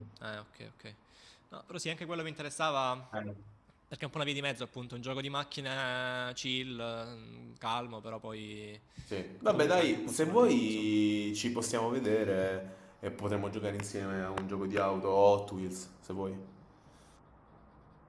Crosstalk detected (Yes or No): Yes